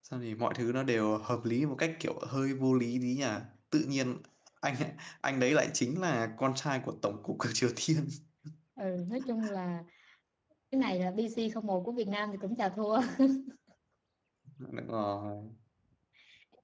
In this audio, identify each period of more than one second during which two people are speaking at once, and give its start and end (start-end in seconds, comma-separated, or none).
none